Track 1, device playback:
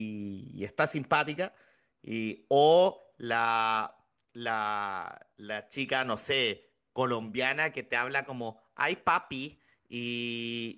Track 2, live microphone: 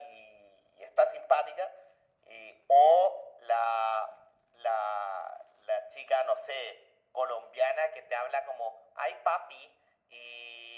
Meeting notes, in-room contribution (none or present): none